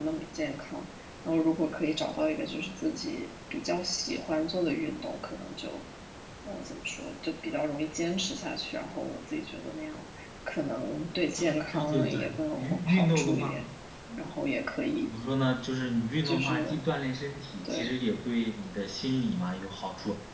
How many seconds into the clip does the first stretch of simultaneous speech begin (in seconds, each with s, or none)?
11.4 s